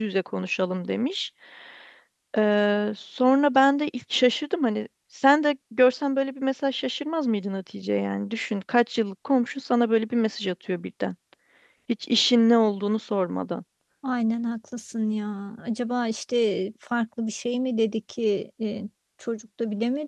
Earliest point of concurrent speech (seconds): none

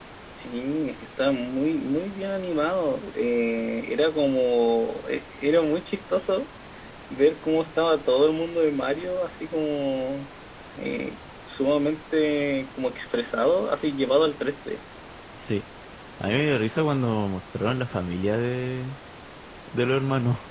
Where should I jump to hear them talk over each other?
none

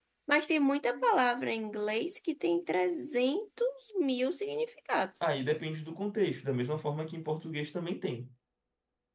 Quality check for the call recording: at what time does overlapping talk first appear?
none

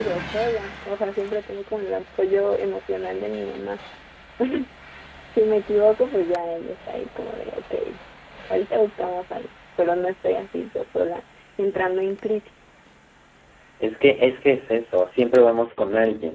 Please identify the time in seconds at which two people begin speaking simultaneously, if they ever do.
none

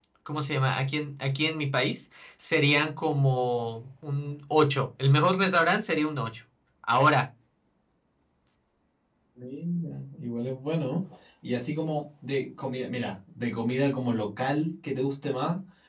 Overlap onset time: none

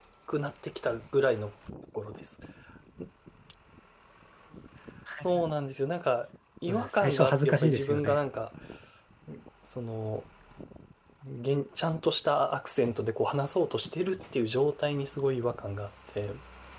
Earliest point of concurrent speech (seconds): 7 s

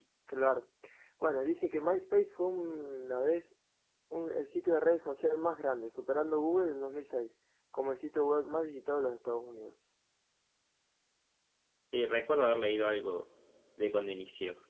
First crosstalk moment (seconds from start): none

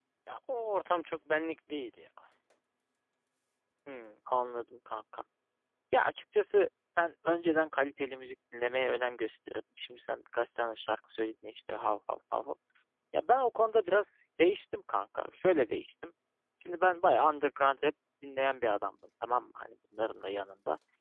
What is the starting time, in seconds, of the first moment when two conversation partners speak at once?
none

